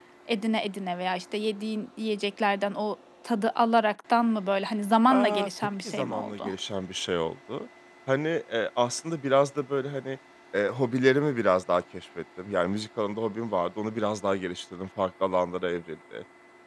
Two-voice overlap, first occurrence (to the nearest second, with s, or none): 5 s